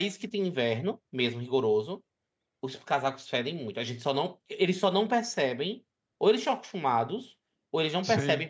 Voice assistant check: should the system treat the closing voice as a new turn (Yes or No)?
No